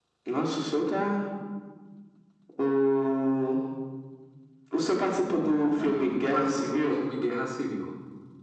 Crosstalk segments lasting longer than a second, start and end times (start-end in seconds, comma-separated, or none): 5.2-7.0